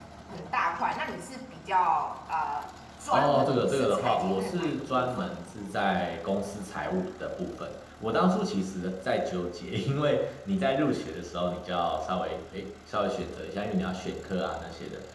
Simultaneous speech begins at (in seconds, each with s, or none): 3.1 s